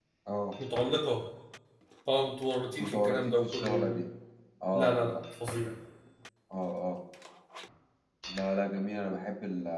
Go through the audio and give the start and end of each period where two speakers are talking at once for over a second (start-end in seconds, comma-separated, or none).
2.8-4.1